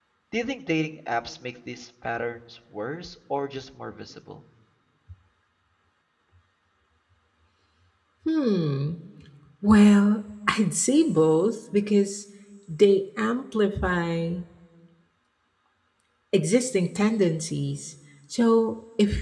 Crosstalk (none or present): none